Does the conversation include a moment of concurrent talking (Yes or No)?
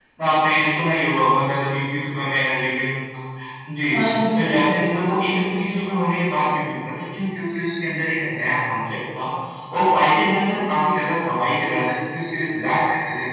Yes